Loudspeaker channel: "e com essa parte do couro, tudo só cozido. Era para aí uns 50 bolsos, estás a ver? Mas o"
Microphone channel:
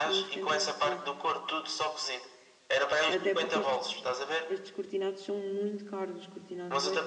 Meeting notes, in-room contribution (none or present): present